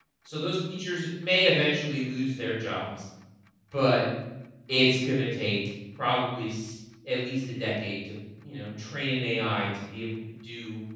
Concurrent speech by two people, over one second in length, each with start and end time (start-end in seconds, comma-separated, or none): none